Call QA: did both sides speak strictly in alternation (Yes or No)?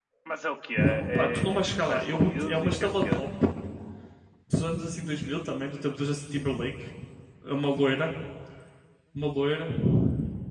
No